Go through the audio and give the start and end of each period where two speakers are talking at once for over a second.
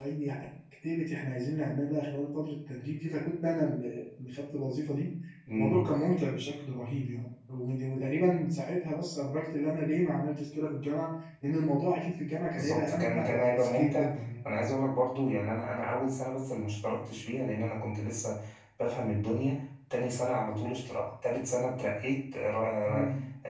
12.6-14.1

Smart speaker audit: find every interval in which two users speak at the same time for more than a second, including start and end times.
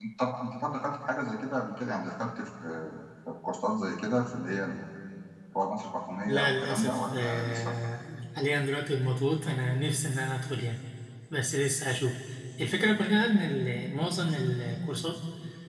6.2-7.7

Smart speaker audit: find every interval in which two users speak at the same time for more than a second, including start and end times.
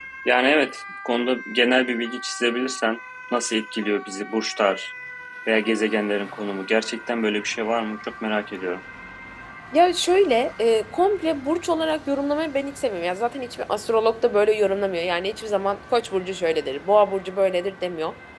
none

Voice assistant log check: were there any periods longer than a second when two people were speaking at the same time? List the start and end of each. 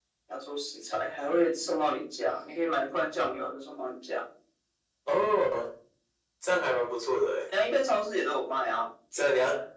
none

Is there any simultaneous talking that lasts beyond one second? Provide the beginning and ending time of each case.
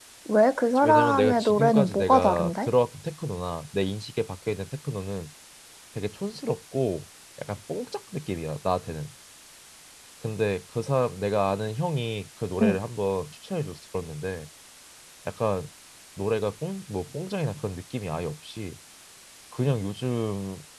0.8-2.7

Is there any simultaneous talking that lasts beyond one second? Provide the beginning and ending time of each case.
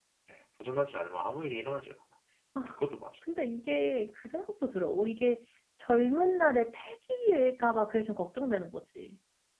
none

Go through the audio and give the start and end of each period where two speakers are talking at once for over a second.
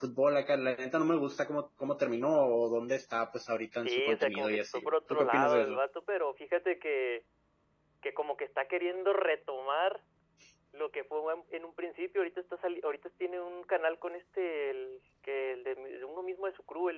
3.8-5.8

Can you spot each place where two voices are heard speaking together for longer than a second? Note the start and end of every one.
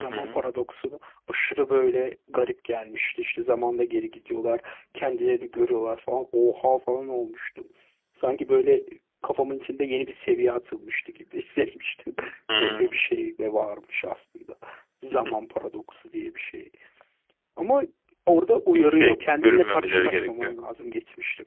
18.7-20.6

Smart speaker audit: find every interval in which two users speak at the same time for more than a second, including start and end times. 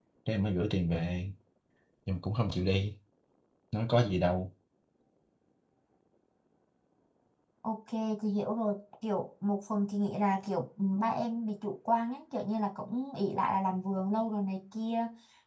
none

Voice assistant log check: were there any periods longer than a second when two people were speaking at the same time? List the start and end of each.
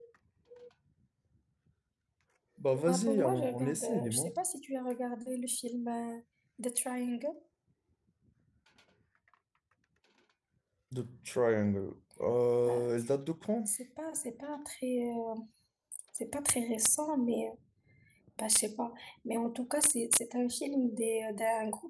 2.9-4.3

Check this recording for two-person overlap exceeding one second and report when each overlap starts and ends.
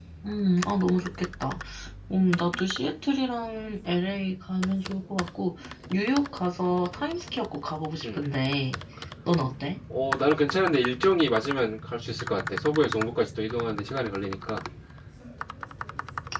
none

